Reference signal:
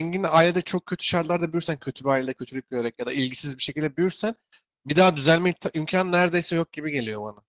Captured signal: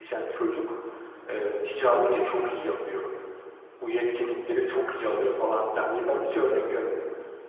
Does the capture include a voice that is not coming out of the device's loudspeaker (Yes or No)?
Yes